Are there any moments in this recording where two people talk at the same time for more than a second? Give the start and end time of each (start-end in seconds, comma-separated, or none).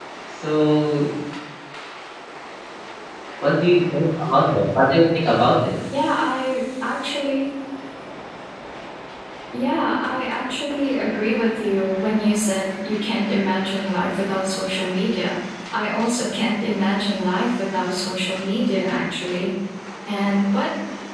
none